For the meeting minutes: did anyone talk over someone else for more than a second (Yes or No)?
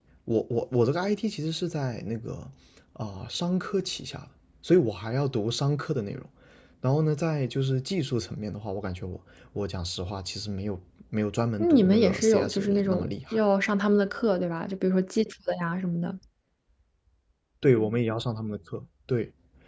Yes